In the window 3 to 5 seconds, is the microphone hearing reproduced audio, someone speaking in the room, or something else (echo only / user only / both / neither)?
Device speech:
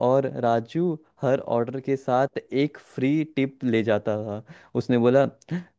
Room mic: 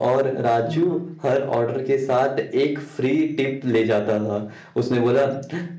echo only